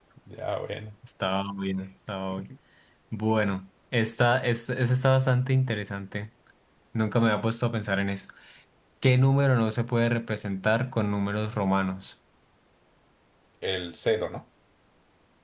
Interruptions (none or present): none